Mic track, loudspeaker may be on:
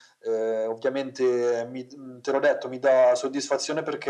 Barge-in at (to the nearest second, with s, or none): none